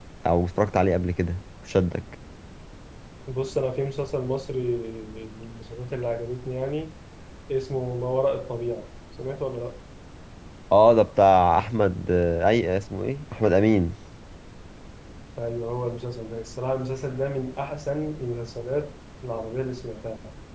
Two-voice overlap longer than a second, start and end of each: none

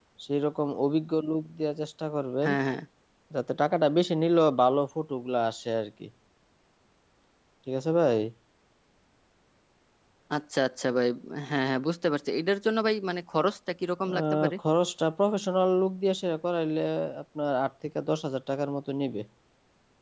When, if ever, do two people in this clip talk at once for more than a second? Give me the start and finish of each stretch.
none

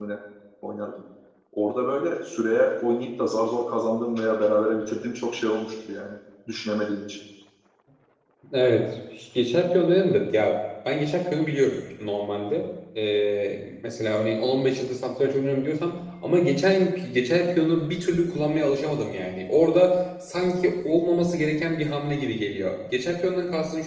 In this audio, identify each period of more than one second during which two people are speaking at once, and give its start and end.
none

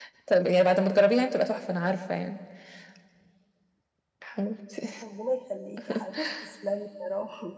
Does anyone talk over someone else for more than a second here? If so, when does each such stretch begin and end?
none

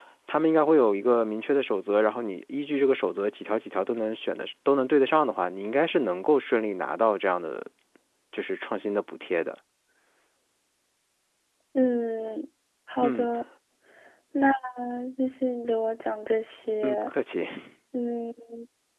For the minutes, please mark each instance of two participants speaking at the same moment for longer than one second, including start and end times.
none

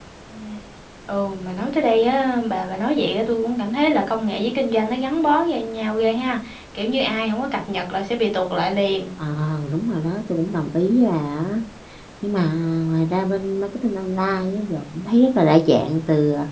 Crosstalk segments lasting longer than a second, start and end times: none

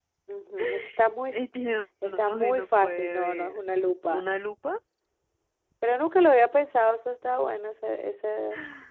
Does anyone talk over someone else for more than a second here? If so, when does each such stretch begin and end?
2.0-3.6

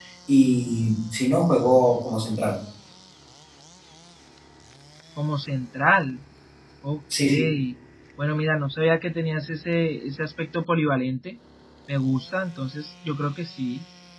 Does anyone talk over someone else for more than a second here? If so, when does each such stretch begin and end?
none

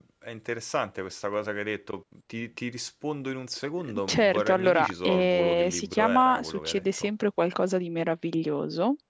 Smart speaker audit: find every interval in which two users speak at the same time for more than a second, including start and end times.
4.1-7.1

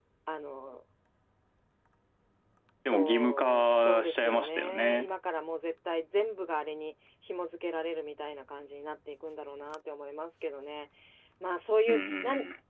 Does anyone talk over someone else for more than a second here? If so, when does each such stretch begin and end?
2.9-5.1

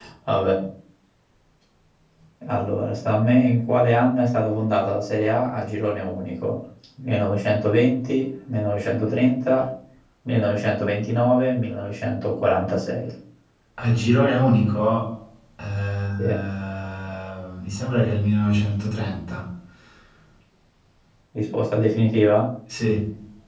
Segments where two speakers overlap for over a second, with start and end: none

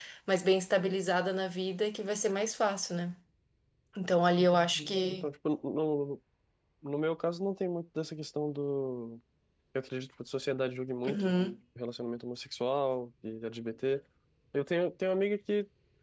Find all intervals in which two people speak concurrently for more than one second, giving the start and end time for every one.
none

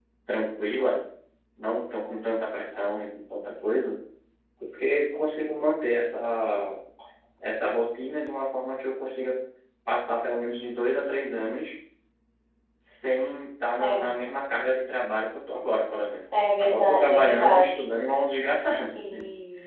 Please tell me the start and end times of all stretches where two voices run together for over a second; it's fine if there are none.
16.6-17.8

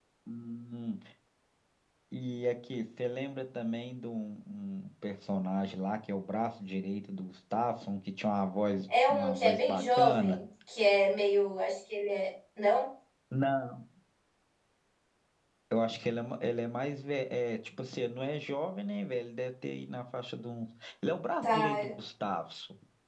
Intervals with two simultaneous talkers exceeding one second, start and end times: 9.1-10.4

